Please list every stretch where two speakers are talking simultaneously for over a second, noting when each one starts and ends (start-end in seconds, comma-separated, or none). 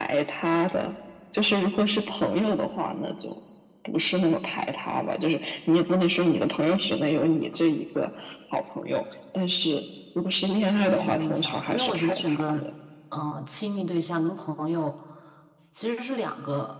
10.8-12.5